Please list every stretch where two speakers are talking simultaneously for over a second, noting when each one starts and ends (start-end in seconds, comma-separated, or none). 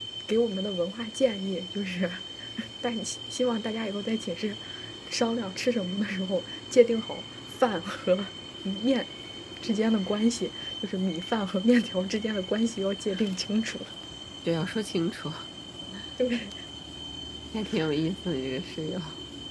none